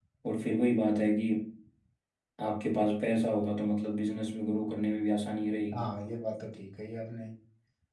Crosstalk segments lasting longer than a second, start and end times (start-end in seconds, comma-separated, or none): none